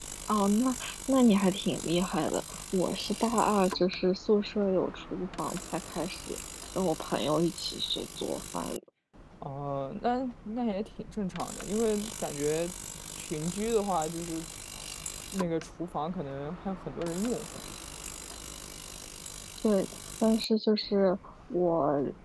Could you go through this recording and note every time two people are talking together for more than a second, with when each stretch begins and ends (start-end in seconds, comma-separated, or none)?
none